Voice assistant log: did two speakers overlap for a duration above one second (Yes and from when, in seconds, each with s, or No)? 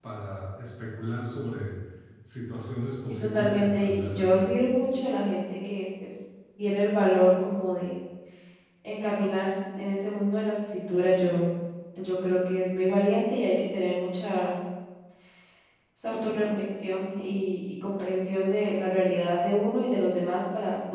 Yes, from 3.2 s